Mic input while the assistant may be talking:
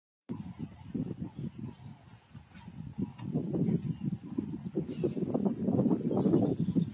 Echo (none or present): none